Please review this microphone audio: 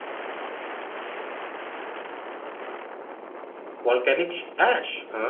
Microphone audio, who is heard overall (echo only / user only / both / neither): user only